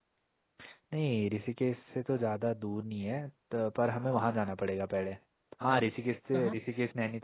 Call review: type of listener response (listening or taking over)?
listening